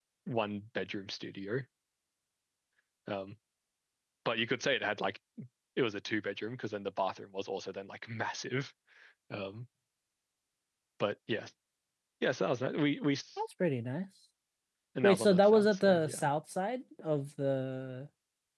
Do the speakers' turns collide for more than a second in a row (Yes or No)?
Yes